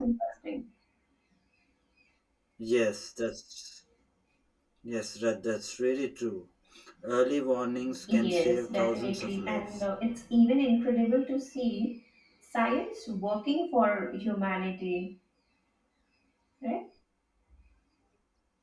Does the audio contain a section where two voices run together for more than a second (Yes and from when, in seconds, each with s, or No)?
Yes, from 8.1 s